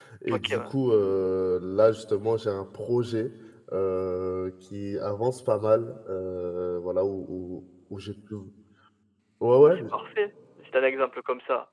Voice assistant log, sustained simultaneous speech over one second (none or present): none